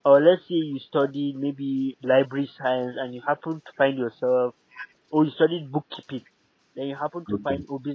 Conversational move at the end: listening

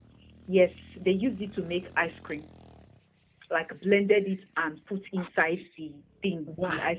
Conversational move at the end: listening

